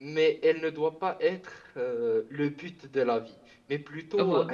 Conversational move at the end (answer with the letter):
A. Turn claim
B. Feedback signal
B